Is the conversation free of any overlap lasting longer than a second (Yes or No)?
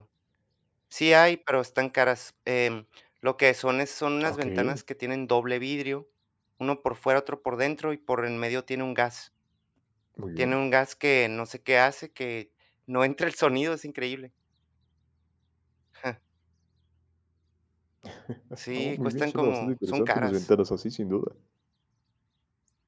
No